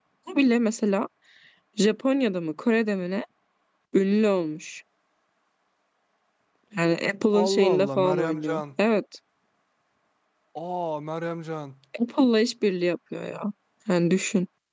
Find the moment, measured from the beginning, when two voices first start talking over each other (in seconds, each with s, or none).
7.3 s